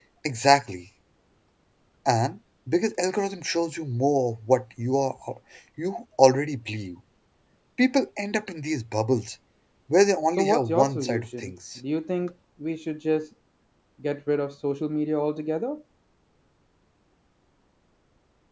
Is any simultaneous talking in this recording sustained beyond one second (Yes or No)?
Yes